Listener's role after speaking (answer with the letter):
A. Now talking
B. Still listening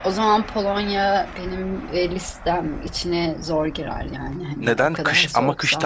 A